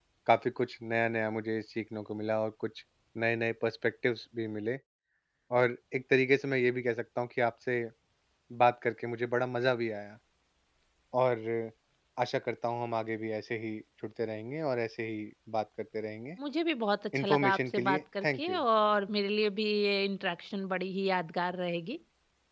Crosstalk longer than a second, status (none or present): present